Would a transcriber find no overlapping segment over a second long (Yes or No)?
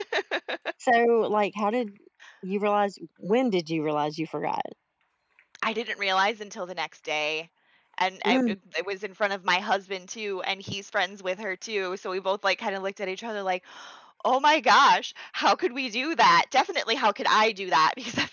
Yes